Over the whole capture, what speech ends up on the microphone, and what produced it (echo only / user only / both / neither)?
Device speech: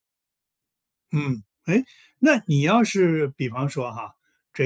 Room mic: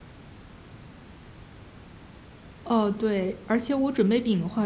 user only